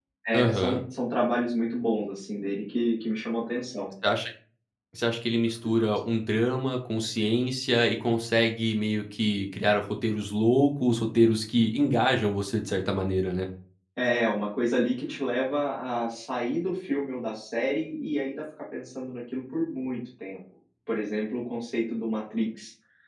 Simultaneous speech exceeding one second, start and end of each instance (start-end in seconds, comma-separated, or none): none